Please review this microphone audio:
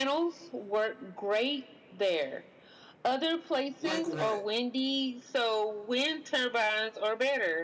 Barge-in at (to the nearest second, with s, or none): 4 s